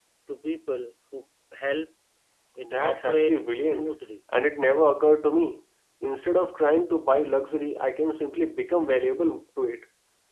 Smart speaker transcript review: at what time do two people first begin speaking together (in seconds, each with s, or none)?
2.6 s